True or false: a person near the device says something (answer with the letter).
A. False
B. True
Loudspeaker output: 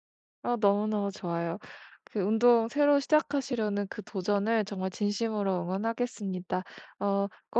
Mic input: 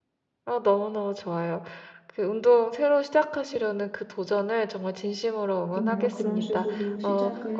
B